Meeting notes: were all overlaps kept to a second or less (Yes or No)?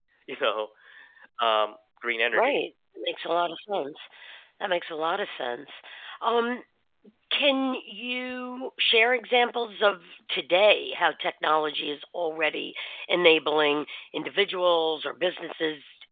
Yes